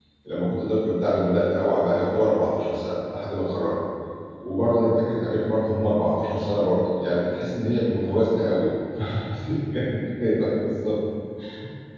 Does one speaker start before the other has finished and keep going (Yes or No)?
No